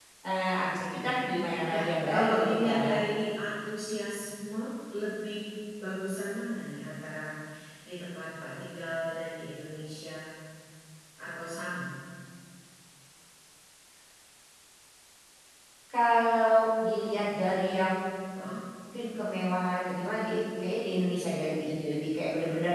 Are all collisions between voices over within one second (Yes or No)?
No